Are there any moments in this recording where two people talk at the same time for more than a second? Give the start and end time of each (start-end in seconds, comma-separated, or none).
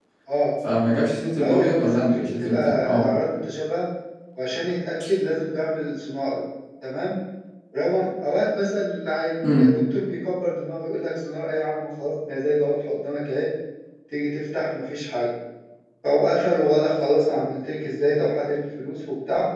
1.4-3.1